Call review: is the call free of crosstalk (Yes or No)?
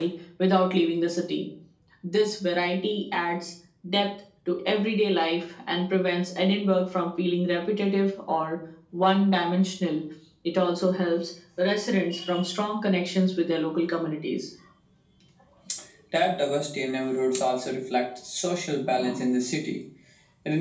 Yes